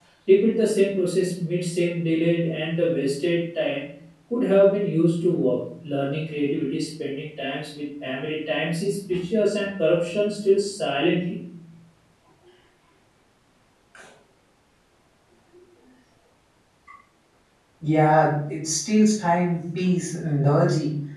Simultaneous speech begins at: none

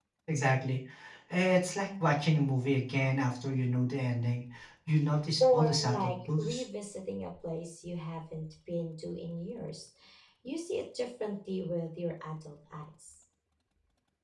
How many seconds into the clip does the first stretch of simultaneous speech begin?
5.4 s

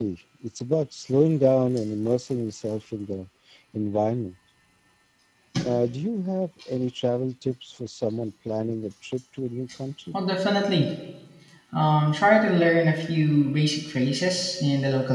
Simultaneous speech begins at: none

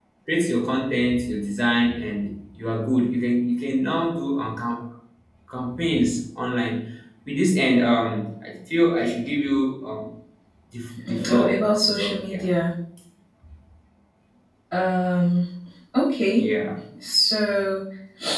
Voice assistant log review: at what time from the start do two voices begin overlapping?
11.1 s

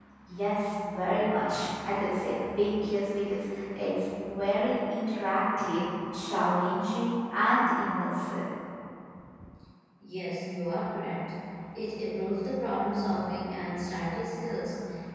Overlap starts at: none

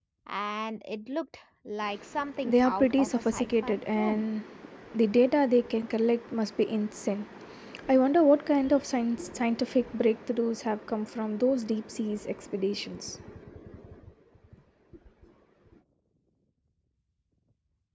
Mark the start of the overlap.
2.4 s

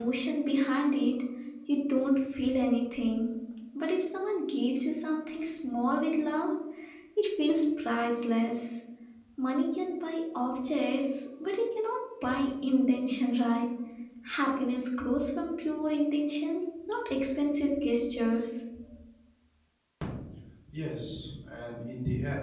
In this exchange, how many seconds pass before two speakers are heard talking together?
none

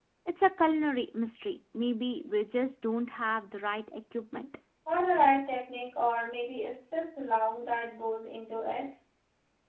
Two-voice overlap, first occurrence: none

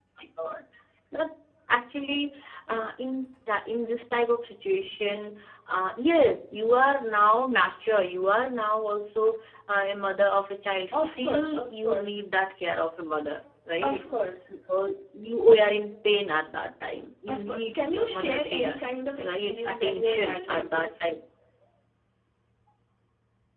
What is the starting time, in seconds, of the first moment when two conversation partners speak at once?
10.9 s

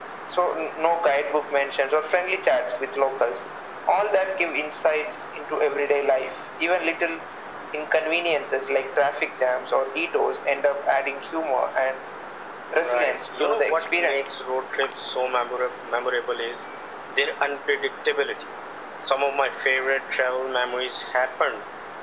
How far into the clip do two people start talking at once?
12.7 s

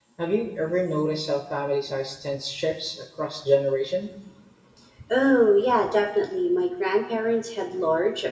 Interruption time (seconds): none

